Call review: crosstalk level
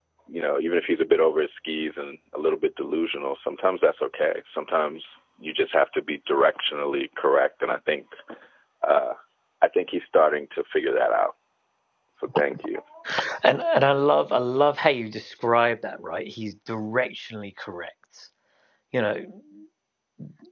none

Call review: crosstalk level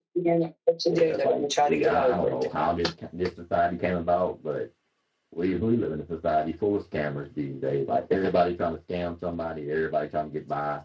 present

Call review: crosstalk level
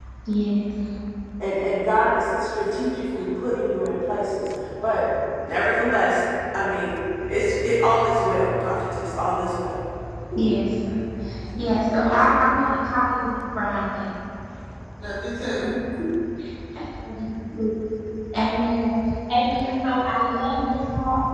none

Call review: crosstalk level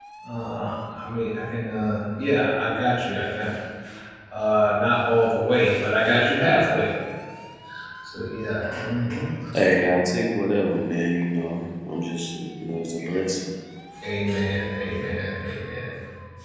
none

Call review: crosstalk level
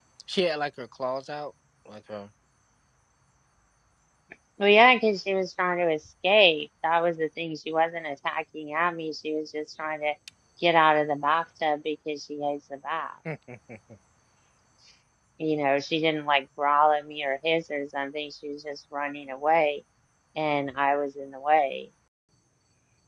none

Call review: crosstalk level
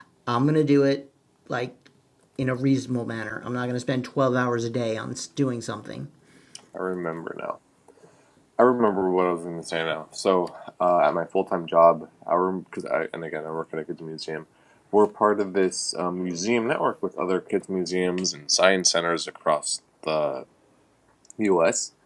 none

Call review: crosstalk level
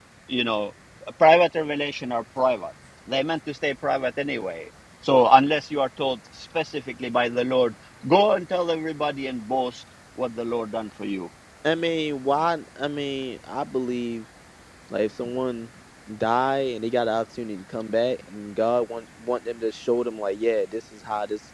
none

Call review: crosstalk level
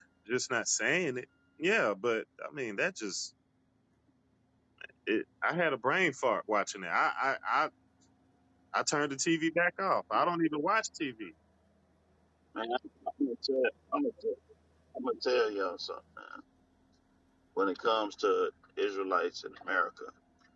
none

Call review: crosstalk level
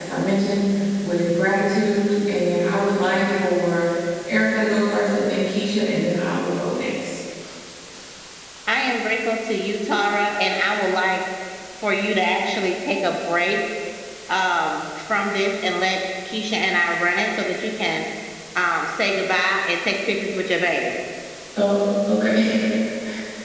none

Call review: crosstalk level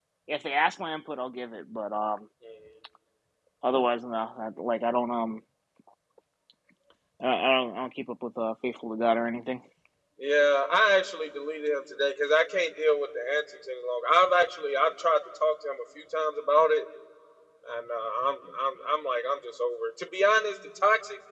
none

